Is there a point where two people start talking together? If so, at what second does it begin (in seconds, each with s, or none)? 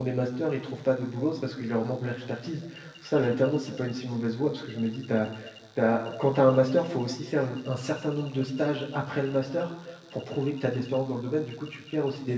none